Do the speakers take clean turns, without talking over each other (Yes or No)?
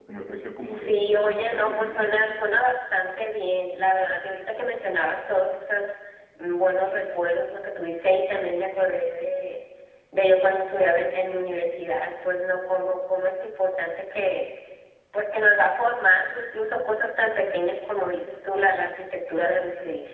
No